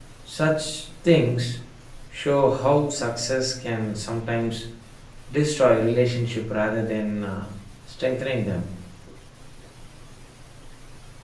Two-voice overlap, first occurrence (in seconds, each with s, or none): none